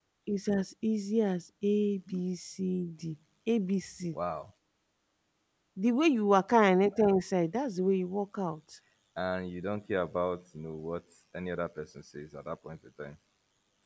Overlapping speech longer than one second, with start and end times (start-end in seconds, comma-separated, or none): none